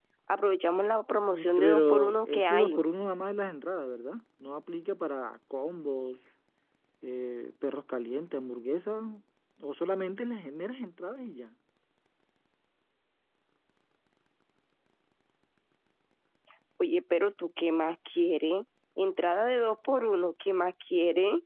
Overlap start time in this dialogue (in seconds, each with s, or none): 1.3 s